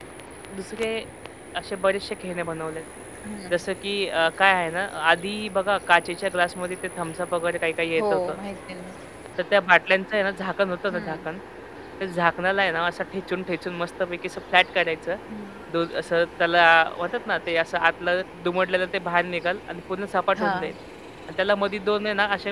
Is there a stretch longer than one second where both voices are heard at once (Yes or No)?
No